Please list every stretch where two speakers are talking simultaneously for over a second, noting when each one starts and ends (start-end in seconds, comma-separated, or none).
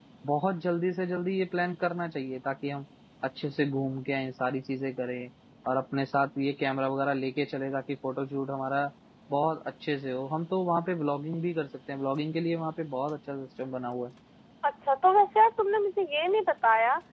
none